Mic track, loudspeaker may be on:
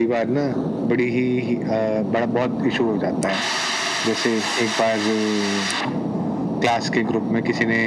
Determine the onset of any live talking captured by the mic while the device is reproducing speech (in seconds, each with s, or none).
none